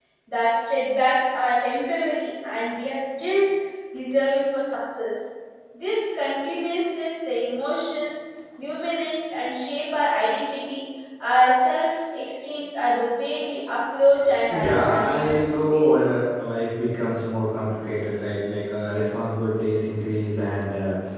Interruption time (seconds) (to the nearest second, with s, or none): 14 s